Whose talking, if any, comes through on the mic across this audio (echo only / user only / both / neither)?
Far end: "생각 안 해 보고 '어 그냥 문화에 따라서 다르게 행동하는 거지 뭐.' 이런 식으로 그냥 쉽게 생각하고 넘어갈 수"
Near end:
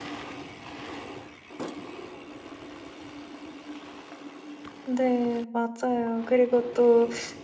user only